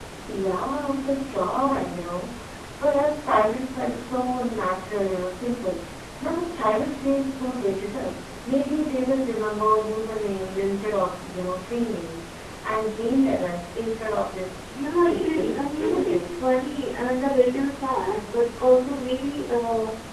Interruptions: present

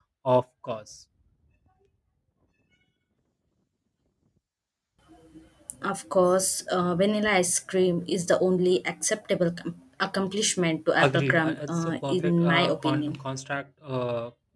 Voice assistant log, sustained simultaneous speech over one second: present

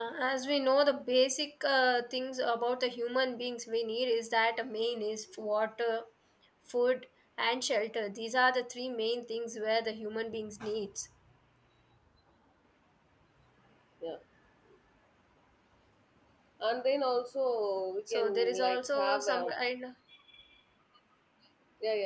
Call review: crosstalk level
present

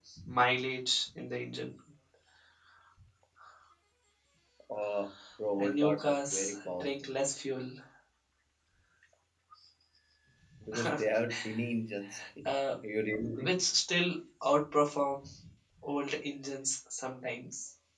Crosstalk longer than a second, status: present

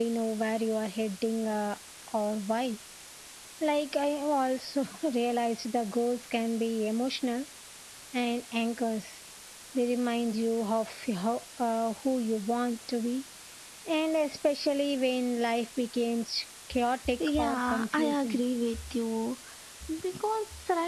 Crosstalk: present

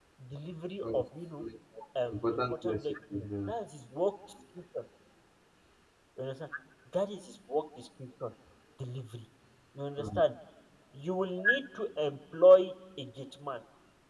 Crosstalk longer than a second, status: present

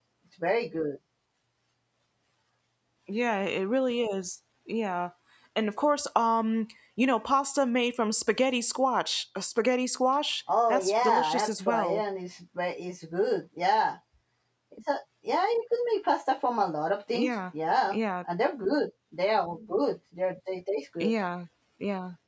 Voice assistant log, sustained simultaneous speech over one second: present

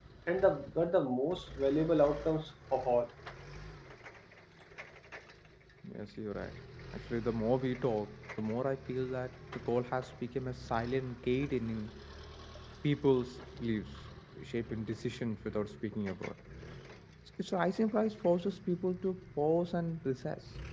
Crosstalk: none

